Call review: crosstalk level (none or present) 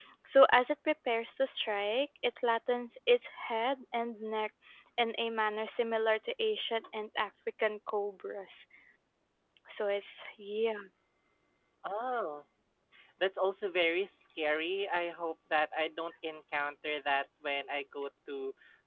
none